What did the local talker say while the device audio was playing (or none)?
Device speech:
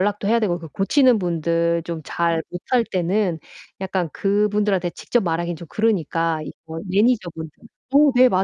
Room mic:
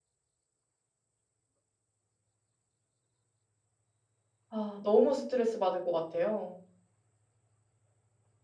아. 너무 스트레스 받을 것 같아요.